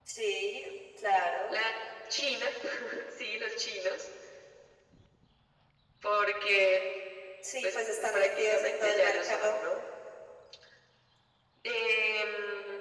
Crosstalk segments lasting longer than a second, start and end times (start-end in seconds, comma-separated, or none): 7.6-9.6